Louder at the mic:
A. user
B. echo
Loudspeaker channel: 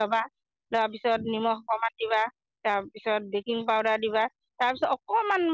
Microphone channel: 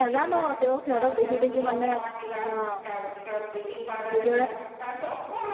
A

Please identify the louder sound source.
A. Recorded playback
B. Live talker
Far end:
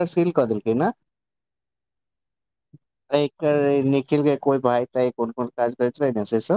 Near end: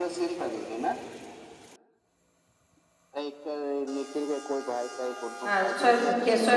B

